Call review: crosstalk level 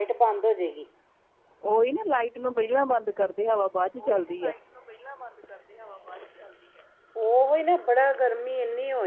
none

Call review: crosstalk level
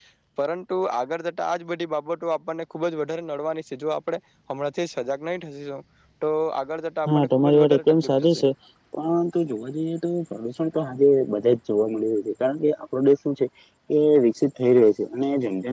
present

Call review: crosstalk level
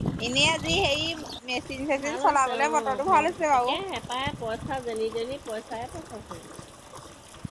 present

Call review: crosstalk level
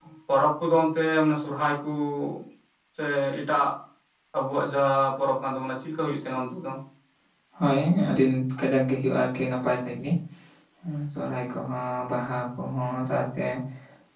none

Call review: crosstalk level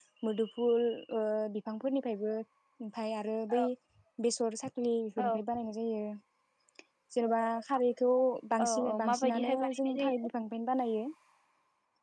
present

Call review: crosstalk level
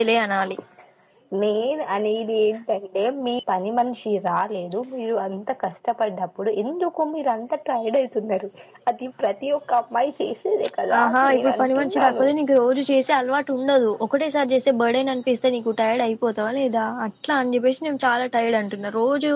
present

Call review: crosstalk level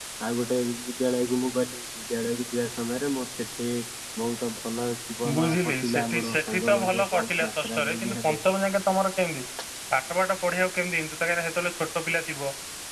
present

